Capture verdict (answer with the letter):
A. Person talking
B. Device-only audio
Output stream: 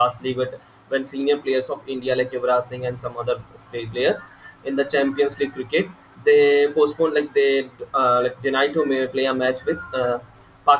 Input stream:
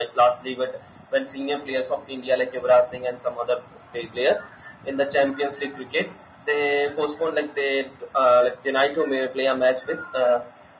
B